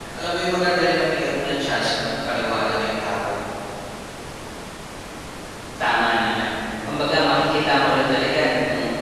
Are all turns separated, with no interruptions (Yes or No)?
Yes